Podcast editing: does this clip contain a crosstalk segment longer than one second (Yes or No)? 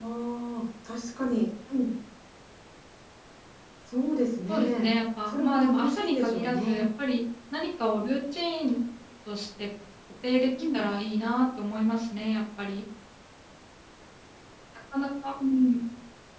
Yes